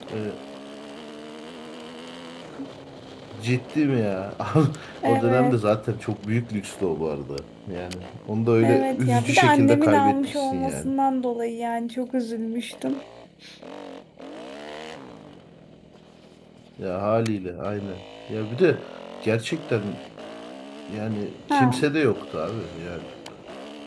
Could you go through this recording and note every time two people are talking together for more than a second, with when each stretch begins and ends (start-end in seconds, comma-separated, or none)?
8.6-10.9